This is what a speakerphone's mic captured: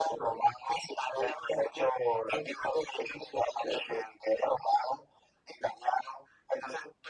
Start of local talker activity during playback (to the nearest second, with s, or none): none